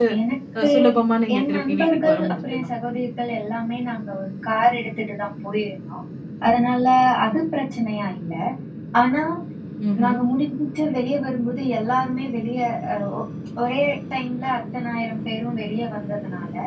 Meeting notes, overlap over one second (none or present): present